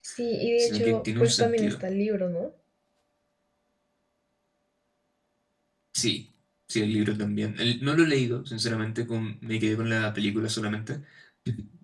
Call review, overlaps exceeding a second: present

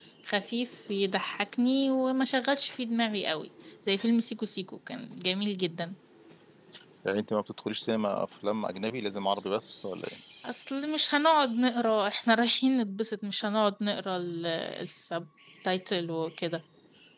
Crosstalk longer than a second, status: none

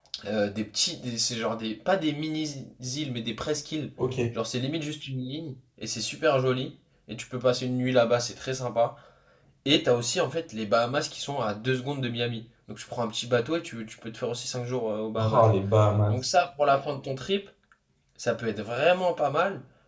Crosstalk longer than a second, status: none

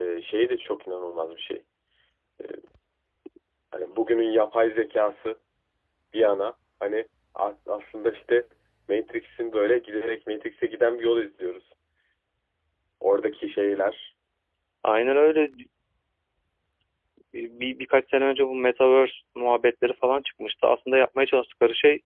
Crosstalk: none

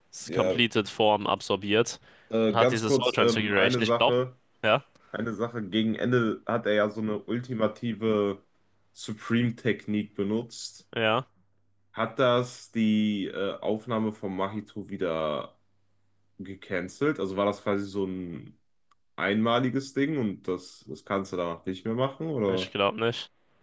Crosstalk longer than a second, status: present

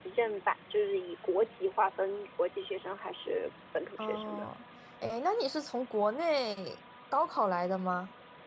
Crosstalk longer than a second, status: none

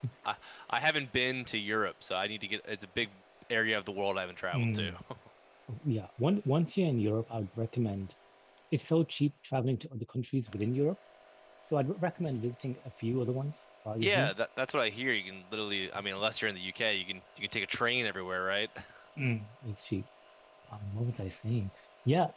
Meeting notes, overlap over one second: none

